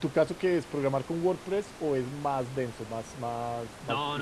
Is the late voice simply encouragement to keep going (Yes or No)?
No